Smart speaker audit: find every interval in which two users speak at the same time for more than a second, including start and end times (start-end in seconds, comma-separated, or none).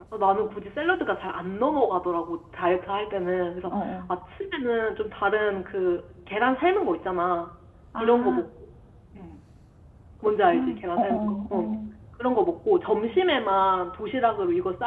10.4-11.6